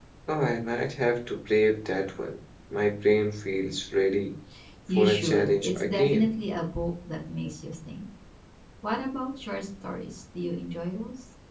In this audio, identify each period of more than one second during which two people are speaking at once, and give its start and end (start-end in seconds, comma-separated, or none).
5.0-6.3